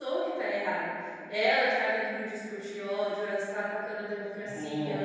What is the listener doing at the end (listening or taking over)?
listening